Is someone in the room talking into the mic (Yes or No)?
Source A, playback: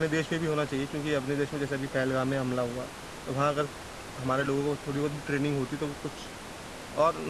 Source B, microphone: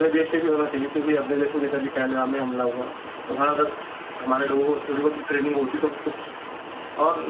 No